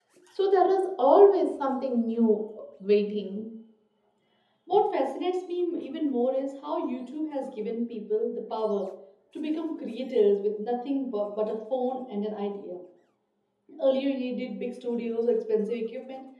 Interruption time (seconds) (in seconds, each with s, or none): none